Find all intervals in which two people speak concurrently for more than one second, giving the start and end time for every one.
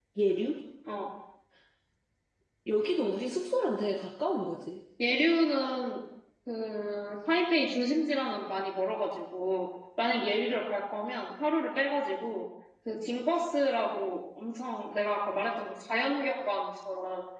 none

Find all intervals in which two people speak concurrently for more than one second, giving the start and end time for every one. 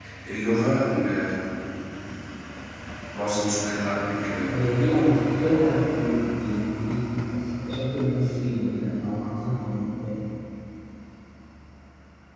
none

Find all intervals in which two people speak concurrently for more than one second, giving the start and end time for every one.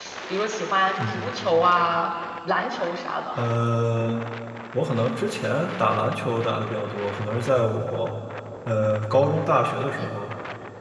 none

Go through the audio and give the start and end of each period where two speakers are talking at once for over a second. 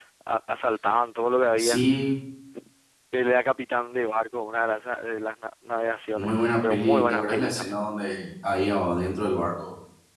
6.1-7.8

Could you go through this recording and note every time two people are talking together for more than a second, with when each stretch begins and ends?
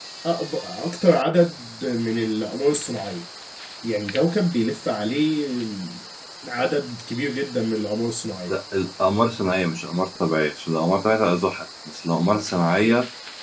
none

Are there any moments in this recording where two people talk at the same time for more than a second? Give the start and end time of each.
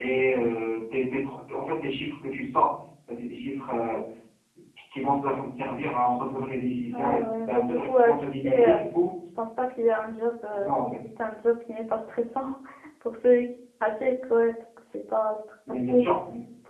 6.9-8.8

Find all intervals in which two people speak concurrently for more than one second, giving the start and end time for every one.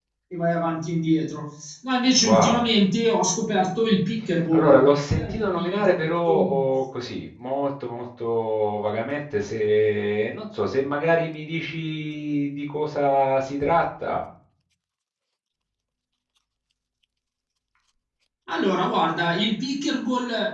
4.5-6.5

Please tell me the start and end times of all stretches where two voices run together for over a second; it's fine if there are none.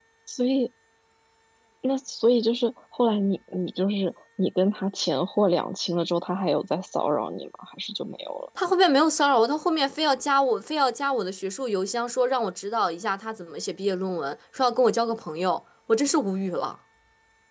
none

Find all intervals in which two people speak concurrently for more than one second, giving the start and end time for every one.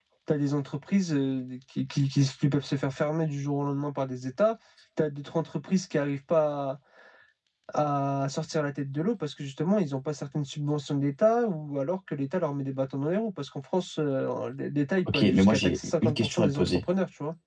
15.1-16.8

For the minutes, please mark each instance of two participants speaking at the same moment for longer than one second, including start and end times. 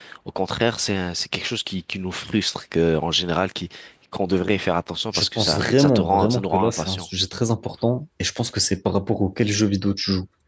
5.1-7.1

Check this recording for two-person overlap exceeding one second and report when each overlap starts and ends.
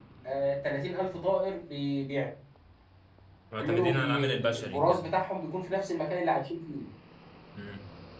3.6-5.1

